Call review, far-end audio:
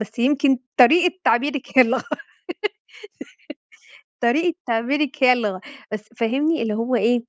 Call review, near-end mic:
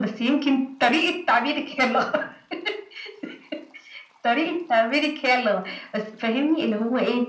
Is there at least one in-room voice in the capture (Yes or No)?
No